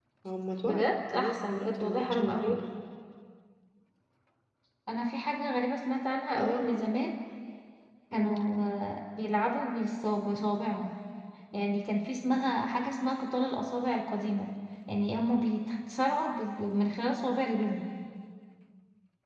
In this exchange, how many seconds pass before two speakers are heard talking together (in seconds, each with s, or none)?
0.6 s